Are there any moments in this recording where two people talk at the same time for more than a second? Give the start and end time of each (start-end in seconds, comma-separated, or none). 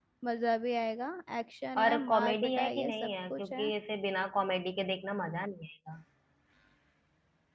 1.8-3.7